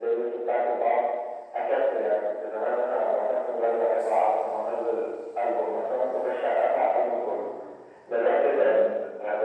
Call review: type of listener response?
listening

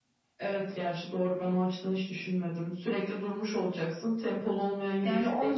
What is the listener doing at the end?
taking over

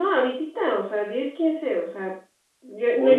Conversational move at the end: listening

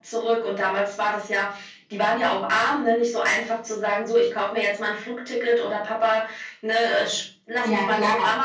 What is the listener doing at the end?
taking over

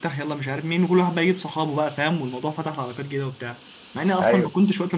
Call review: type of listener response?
listening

